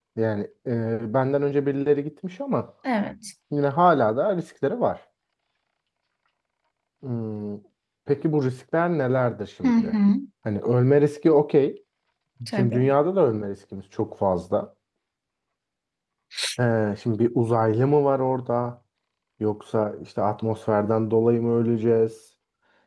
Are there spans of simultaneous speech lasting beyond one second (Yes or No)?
No